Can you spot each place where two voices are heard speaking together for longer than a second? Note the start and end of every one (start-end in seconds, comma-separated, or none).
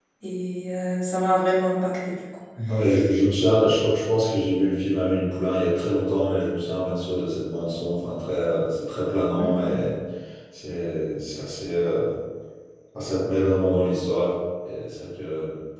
none